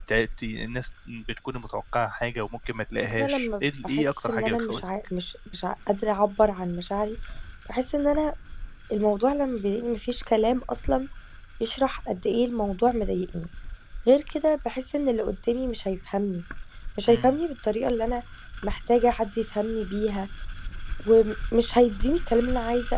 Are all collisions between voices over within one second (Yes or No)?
No